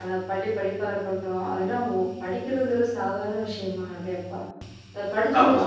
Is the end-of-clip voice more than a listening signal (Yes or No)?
No